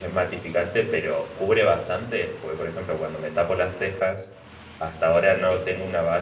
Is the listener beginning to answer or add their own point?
No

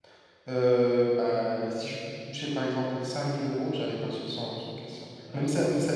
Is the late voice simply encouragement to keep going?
Yes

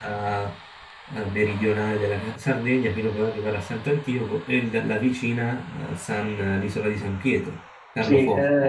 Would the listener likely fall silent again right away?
No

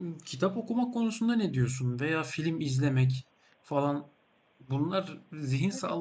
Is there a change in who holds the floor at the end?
No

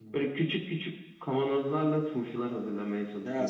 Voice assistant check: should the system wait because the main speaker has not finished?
No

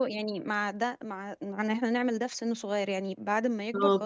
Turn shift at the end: No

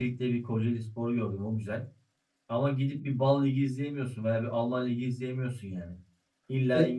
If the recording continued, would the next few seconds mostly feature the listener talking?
No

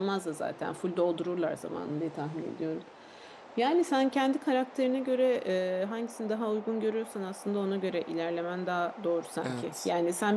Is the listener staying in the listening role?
Yes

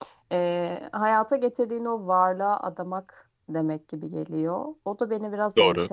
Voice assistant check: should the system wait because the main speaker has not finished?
Yes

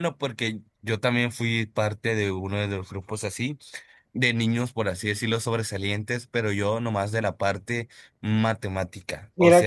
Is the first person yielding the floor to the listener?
Yes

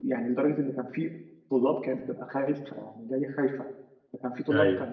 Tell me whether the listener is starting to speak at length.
No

